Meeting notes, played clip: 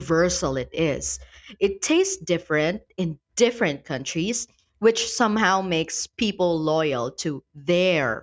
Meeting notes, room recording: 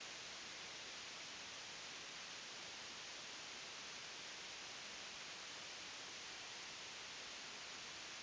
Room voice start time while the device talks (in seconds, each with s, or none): none